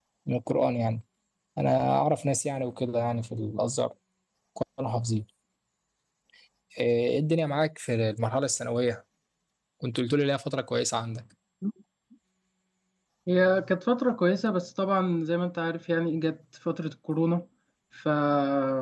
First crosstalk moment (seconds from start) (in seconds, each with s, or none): none